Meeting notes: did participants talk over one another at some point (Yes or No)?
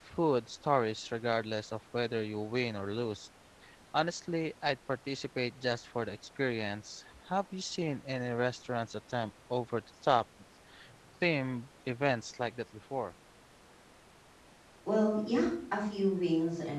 No